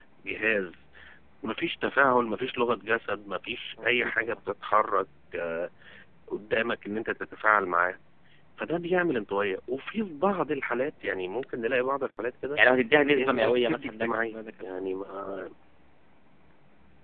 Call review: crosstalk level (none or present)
present